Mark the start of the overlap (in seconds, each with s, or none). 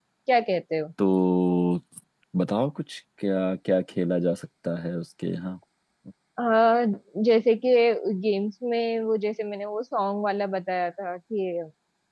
none